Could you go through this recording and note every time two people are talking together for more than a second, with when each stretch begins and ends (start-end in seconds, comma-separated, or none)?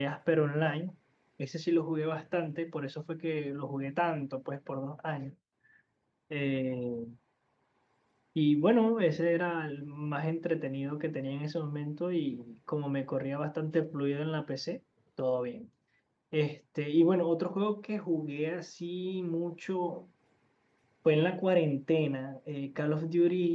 none